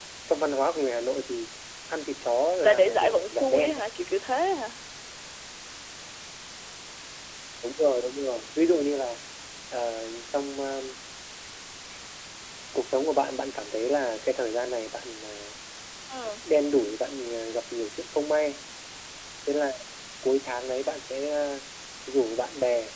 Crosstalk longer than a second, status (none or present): present